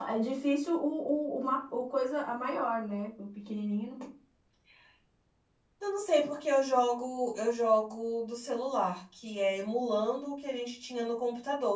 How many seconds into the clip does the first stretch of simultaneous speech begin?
none

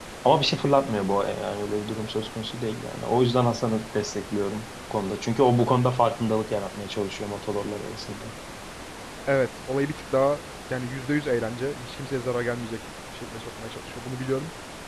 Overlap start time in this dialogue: none

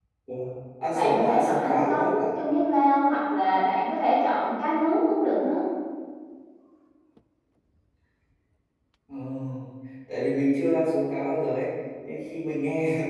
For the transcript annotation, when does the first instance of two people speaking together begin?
0.9 s

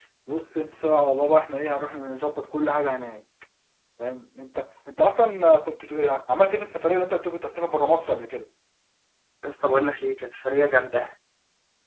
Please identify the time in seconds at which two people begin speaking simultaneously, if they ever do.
none

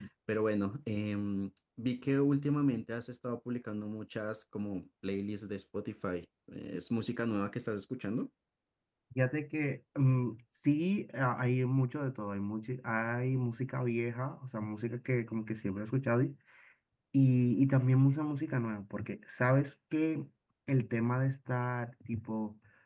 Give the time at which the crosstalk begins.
none

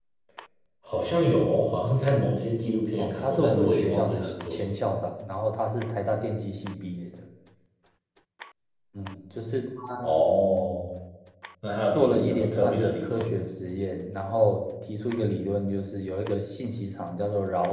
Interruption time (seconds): 3.0 s

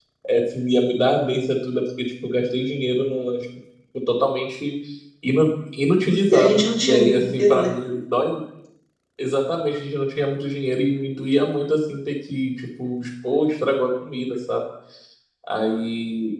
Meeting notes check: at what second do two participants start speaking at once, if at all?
6.3 s

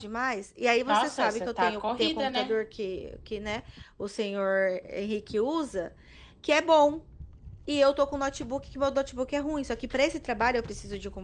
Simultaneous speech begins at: 0.9 s

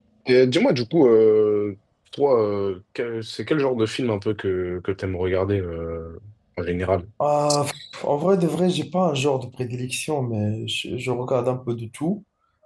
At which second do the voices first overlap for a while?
none

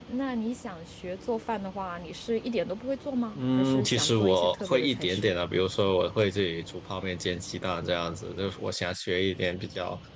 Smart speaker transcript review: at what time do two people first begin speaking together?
3.4 s

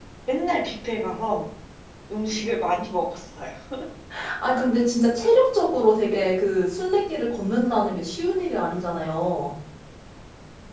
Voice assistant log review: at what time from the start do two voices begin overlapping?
none

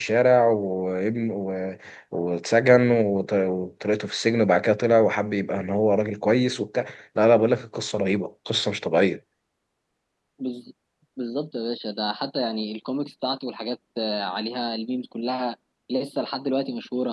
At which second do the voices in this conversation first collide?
none

